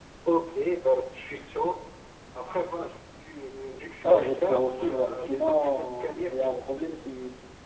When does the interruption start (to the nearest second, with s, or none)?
4 s